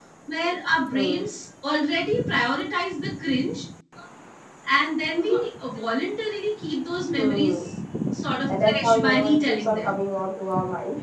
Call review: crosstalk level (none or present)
present